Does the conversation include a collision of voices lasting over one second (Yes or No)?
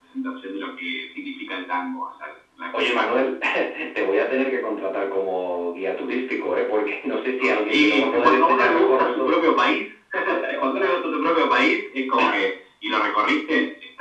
Yes